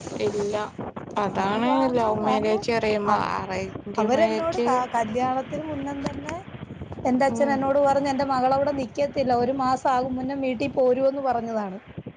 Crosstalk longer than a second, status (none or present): present